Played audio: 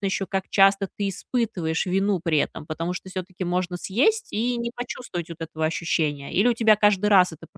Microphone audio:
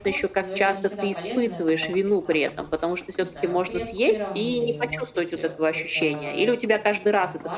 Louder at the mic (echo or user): echo